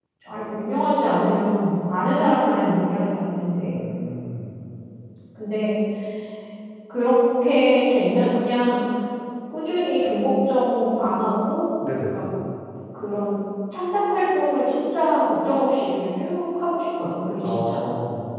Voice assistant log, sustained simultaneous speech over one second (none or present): none